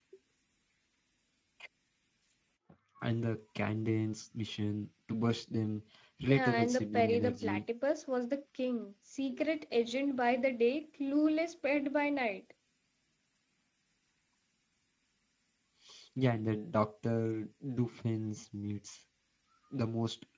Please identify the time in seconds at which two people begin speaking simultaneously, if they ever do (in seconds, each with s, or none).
6.3 s